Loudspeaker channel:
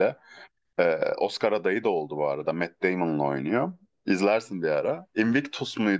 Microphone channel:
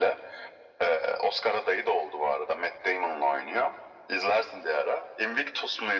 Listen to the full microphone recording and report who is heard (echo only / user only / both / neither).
echo only